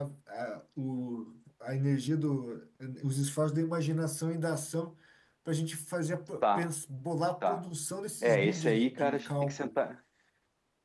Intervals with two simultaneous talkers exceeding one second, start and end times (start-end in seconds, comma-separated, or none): 8.2-9.7